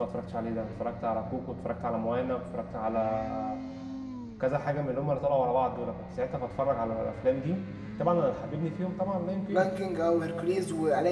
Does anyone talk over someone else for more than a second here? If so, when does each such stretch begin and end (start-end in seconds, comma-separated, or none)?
none